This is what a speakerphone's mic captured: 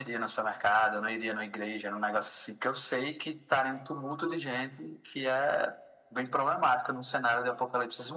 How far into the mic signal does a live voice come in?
none

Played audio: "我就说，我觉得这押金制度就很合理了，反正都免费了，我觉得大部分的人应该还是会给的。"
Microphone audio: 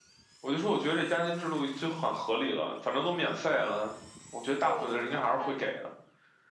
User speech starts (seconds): 4.6 s

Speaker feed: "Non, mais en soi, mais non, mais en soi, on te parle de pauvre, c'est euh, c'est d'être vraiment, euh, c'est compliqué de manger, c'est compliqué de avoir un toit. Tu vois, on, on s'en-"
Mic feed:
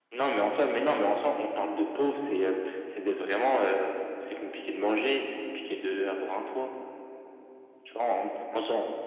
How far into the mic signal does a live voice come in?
none

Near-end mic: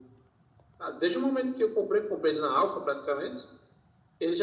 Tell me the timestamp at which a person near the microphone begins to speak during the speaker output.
none

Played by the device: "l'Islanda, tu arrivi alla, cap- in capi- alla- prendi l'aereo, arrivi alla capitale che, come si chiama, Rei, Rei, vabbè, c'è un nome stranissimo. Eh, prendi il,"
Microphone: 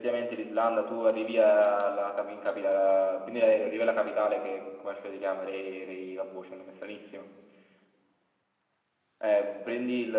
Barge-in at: none

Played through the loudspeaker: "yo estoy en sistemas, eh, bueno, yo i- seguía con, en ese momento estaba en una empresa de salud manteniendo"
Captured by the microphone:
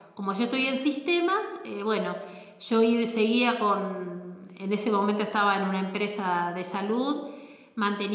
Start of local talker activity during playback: none

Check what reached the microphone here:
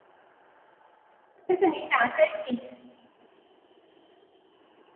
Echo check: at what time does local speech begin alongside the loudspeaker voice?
1.5 s

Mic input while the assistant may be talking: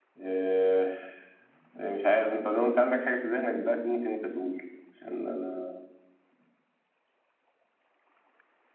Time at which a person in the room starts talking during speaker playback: none

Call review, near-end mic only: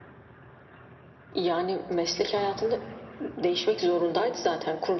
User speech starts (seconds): none

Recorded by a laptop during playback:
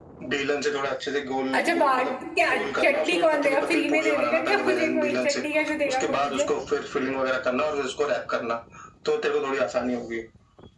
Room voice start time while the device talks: 1.5 s

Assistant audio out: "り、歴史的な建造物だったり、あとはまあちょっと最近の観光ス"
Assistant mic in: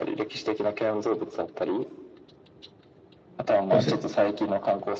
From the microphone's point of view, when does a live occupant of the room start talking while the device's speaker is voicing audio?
3.7 s

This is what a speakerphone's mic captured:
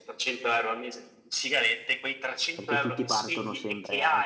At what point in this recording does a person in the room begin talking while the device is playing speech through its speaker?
2.5 s

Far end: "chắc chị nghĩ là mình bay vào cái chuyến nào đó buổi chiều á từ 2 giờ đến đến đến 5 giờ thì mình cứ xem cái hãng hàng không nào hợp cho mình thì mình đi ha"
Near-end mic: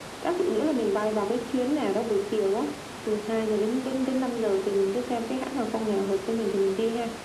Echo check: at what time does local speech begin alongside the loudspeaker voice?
none

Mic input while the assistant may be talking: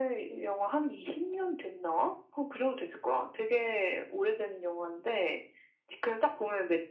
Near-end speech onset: none

